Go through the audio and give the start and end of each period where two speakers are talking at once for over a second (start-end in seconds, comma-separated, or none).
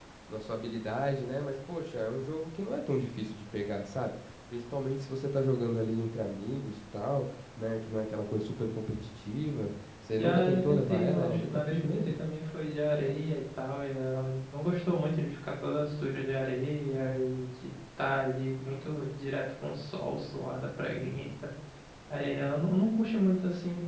10.2-12.2